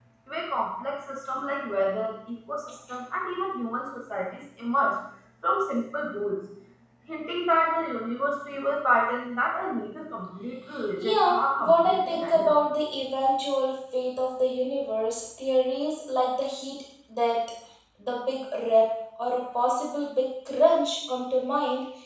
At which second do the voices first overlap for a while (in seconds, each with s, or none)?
11.0 s